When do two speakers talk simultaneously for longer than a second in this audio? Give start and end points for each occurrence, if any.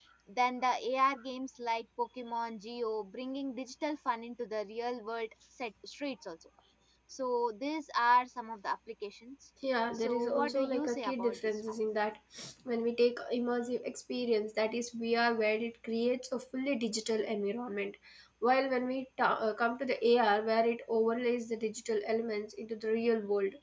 9.9-11.6

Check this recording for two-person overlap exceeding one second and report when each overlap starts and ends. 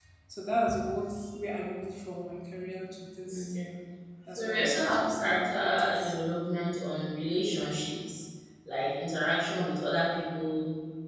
4.3-6.1

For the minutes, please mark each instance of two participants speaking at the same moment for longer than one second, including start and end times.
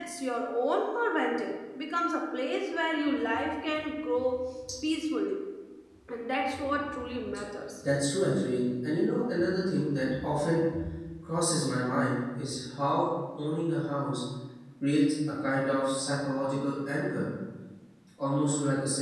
none

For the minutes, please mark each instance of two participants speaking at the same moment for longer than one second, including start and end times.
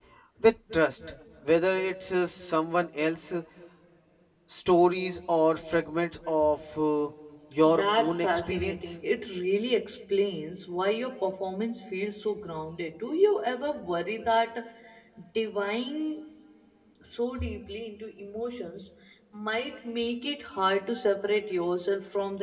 7.8-9.0

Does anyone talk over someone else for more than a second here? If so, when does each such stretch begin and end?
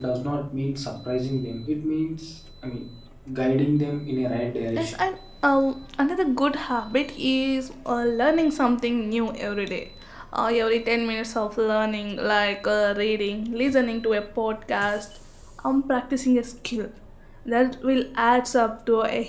none

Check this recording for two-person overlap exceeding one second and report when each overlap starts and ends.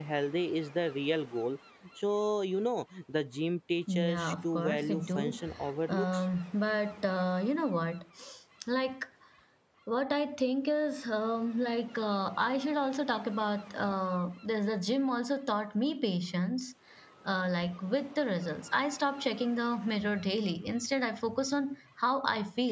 3.9-5.4

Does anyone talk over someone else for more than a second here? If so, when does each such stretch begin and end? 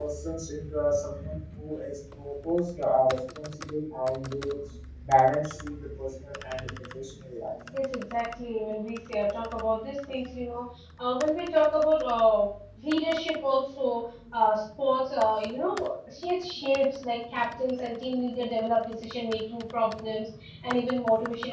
none

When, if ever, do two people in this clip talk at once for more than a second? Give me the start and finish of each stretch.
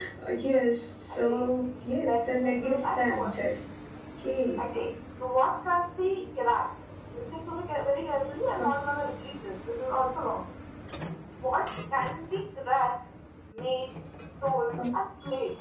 2.0-3.3

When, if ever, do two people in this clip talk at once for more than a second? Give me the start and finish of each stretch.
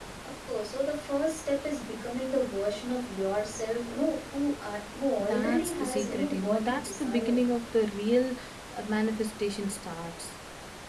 5.2-7.4

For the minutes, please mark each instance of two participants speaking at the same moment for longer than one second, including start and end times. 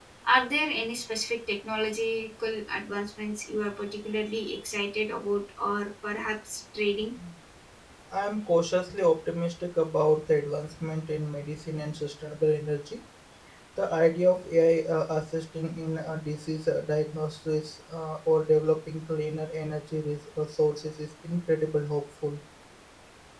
none

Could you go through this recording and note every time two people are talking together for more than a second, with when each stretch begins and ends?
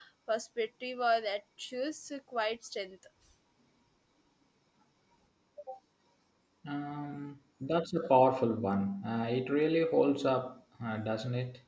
none

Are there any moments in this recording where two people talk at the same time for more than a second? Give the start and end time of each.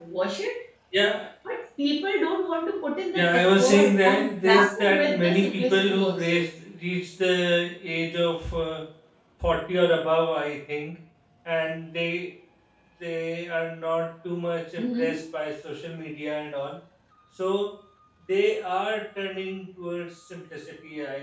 3.1-6.4

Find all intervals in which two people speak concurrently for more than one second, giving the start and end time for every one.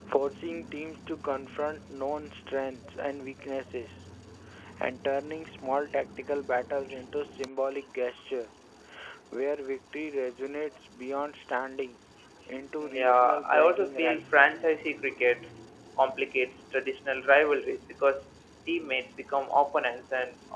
12.8-14.2

